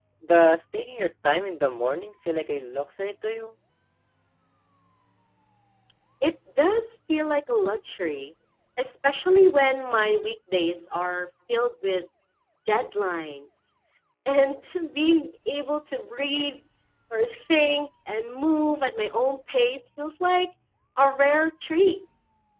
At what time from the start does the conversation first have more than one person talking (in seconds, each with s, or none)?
none